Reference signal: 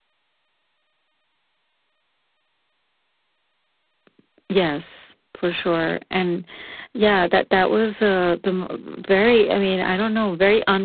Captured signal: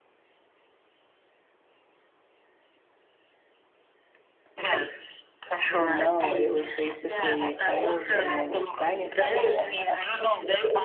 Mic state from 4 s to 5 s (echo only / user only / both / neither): echo only